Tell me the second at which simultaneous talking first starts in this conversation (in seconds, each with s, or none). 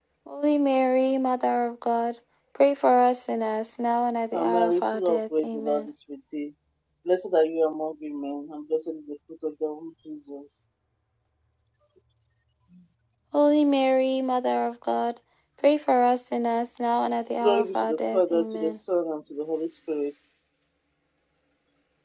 4.3 s